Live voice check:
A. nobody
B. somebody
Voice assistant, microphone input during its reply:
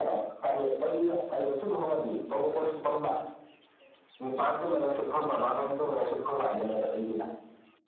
A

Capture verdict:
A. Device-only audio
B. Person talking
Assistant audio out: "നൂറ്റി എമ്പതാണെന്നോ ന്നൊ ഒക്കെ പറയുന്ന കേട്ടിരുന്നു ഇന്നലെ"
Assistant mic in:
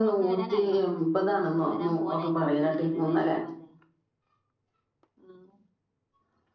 B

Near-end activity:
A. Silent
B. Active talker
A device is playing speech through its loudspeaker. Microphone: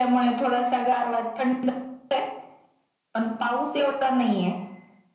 A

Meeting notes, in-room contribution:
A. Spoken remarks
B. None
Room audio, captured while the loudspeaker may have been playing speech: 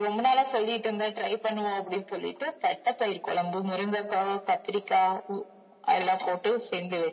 B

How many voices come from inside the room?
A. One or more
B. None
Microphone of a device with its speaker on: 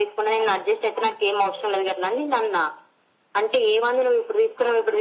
B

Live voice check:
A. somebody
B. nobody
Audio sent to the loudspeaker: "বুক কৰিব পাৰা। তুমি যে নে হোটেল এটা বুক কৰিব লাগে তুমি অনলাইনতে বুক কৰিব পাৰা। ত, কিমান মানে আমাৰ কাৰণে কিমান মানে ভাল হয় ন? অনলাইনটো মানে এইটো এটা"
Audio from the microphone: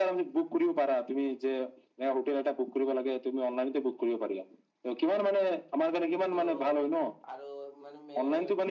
A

